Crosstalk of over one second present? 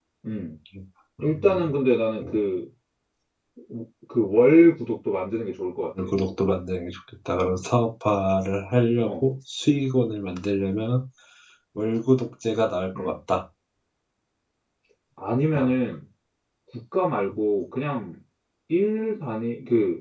No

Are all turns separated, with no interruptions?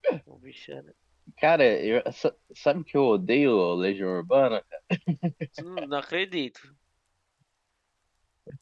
Yes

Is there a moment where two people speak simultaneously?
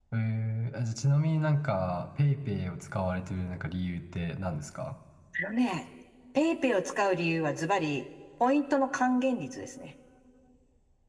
No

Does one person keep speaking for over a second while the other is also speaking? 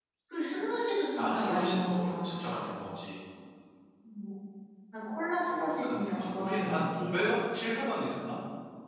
Yes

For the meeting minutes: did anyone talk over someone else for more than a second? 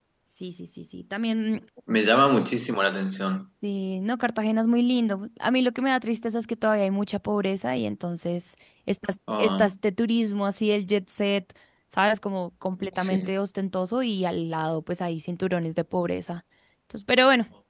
No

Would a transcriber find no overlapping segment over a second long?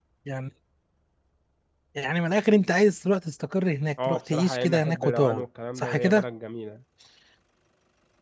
No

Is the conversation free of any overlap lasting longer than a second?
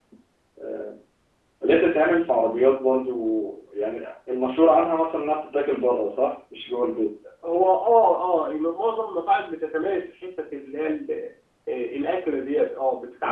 Yes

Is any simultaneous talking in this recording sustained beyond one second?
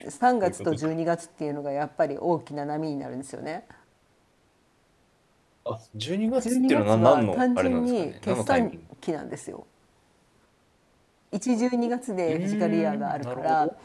Yes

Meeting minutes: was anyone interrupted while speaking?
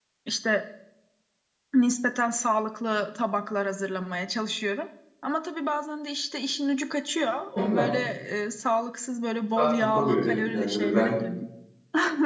Yes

